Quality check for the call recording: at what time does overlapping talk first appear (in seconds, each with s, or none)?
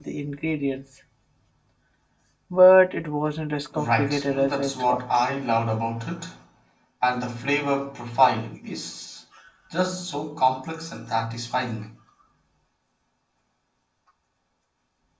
3.7 s